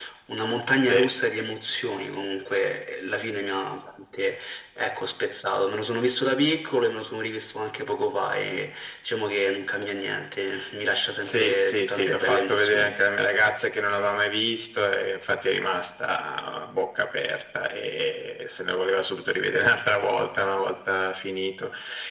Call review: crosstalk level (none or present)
present